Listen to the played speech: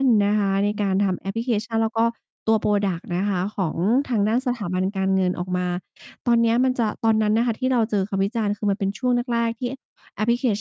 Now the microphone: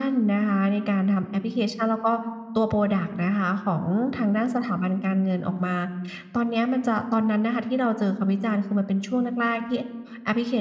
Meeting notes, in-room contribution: none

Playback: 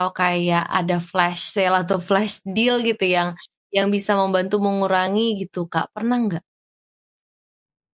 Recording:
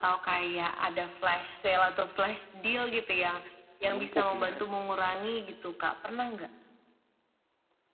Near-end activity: present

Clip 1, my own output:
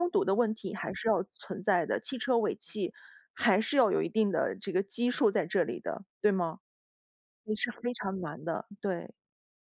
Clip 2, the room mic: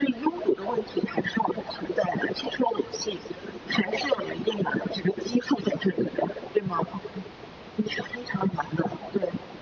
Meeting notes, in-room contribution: none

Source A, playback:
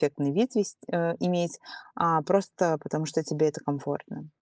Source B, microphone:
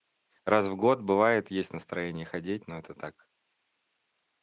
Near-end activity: present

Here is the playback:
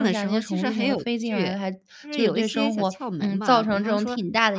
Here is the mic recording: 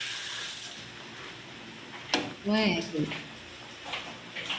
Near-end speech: present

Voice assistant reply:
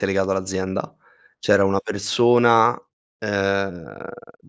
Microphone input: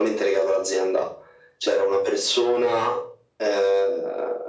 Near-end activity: none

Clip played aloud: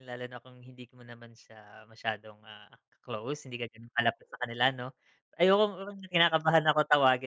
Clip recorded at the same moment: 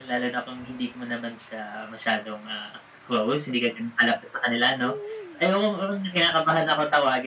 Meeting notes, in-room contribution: none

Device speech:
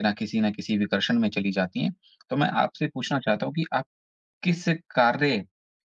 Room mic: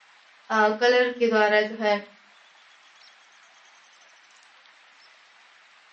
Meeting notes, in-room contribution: present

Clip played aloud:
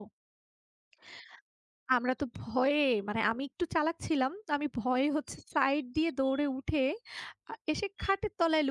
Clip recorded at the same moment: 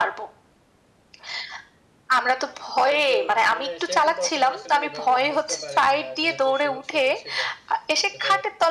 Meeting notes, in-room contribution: present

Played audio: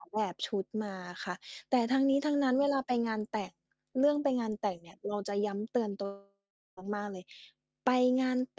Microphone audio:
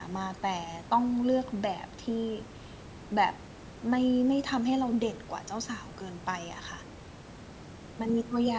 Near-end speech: present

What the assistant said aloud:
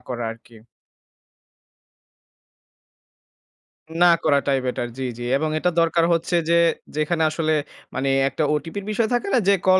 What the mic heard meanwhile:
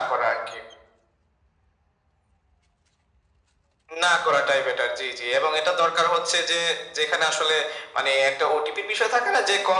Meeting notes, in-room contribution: none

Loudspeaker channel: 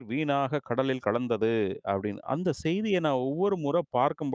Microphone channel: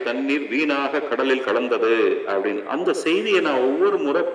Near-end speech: none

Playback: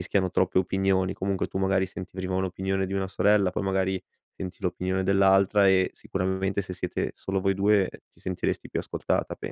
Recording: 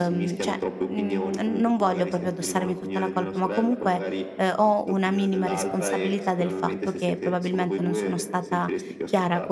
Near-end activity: present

